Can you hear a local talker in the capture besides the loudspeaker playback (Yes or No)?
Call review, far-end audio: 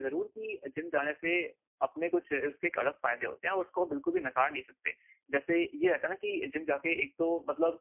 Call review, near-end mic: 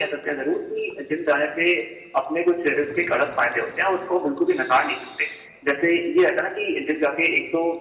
No